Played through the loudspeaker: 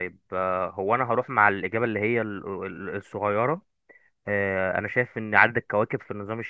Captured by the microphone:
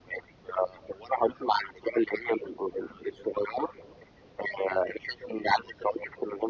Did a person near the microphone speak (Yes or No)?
No